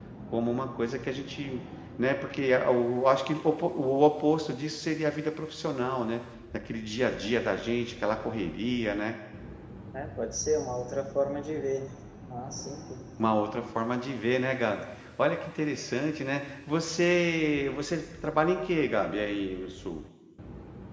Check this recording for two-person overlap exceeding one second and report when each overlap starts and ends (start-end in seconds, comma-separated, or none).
none